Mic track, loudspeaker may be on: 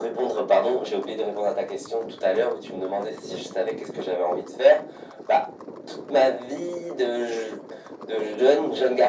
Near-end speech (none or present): none